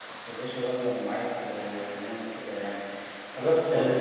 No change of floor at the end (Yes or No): Yes